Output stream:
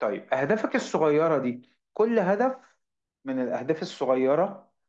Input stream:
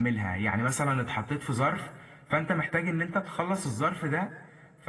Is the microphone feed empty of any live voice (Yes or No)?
No